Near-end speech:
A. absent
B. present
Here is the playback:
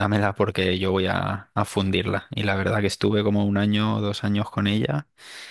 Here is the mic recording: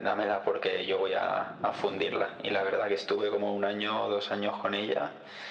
A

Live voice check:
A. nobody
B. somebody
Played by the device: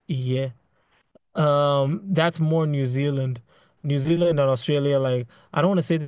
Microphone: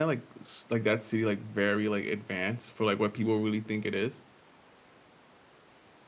B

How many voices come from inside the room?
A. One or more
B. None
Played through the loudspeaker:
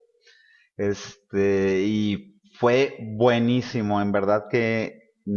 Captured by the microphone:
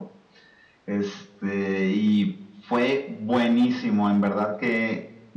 B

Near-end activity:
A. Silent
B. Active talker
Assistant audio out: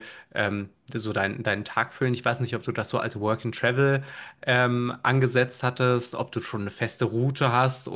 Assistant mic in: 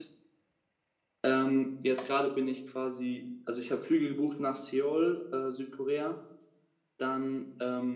B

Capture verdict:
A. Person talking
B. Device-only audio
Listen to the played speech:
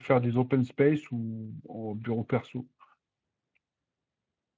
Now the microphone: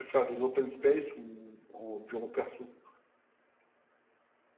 B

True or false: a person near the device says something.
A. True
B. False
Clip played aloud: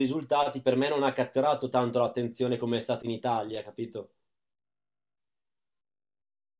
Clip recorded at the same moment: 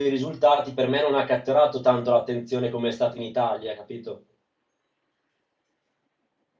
B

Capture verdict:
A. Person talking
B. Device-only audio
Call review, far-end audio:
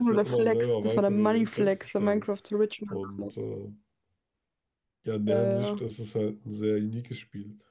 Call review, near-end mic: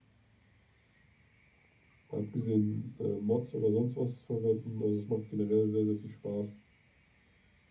A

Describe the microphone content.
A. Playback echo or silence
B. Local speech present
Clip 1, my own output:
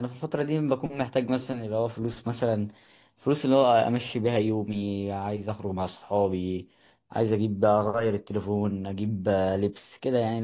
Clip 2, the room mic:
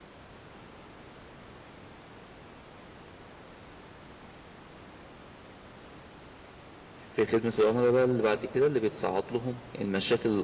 B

